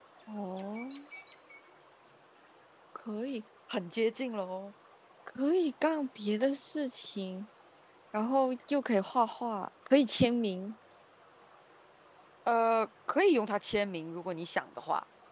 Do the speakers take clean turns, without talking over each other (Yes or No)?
Yes